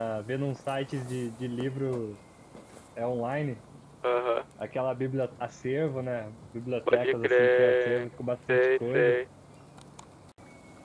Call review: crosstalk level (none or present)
present